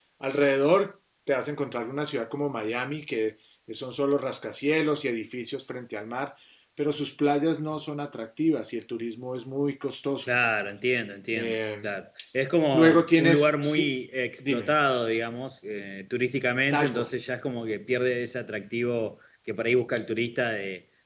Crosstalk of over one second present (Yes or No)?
Yes